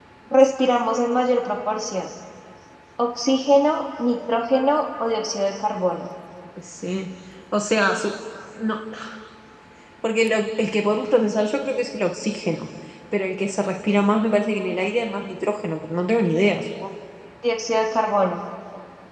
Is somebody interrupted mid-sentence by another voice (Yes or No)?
No